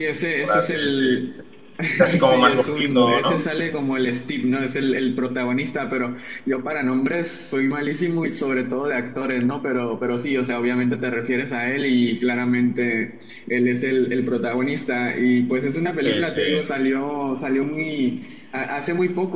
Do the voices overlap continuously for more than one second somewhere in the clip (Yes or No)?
Yes